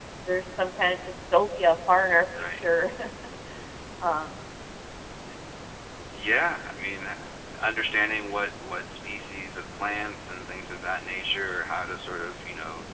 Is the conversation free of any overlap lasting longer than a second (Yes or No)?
Yes